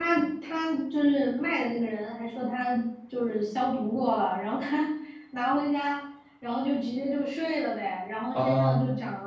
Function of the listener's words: listening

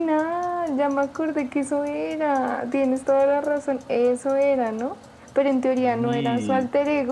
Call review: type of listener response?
listening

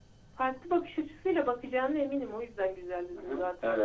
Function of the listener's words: taking over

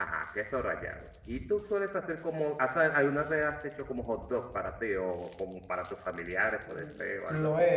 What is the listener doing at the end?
taking over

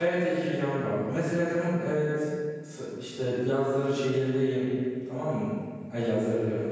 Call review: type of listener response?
listening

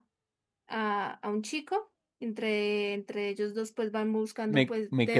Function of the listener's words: taking over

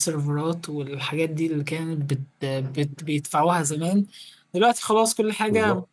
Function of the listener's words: listening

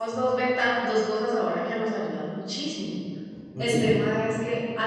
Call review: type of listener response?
listening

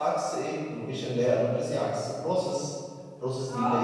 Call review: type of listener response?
taking over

